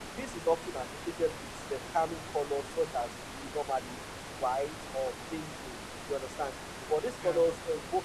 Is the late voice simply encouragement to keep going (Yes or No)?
Yes